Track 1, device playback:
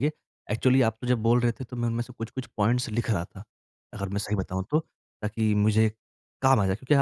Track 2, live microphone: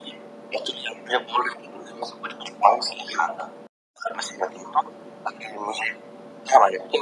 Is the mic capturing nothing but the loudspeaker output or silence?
Yes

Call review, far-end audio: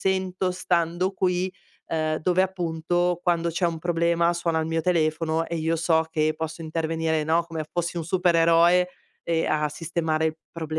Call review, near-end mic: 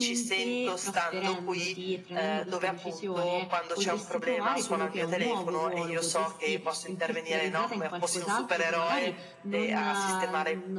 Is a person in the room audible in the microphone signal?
Yes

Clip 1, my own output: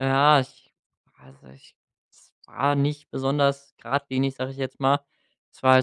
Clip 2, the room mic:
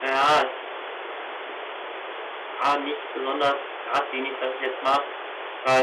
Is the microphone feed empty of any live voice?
Yes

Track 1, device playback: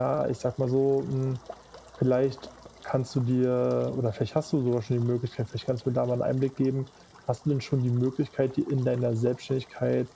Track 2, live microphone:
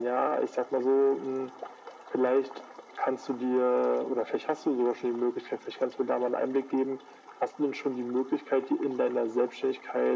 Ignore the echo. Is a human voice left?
No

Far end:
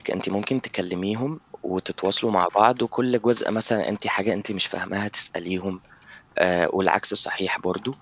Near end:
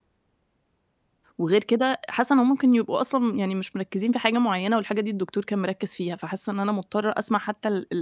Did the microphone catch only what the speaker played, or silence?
No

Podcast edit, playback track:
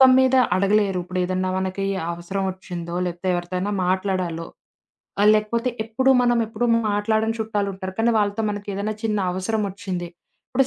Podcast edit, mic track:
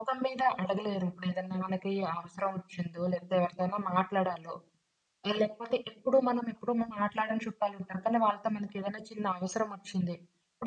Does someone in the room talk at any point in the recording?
No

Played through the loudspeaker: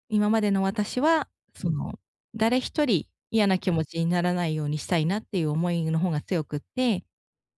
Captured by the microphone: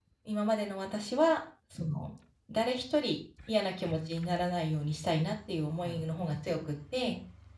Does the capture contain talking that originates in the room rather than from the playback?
Yes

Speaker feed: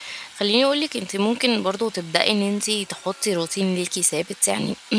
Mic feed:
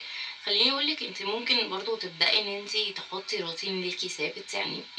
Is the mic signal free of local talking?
Yes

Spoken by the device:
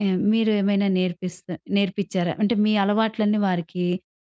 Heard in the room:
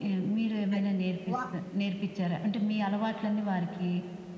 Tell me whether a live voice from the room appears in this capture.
Yes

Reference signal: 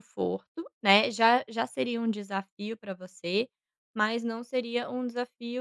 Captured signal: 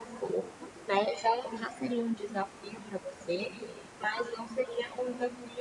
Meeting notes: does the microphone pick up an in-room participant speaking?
No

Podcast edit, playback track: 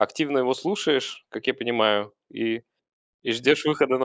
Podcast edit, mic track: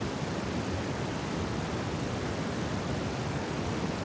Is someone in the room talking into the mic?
No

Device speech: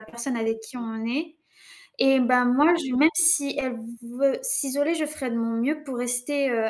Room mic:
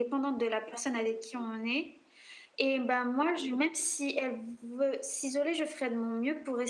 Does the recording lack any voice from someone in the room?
Yes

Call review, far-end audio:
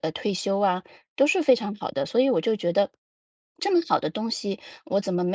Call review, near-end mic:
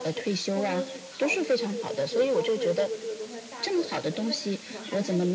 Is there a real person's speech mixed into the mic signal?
Yes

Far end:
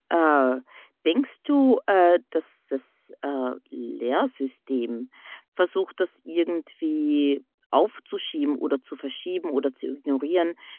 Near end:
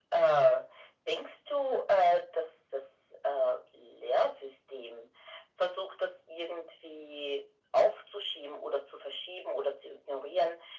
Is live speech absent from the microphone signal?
Yes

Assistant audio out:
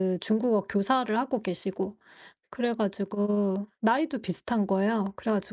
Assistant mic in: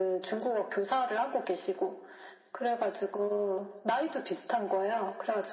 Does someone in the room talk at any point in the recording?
No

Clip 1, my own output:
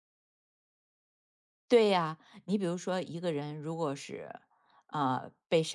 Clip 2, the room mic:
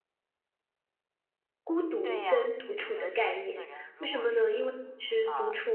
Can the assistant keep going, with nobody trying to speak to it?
No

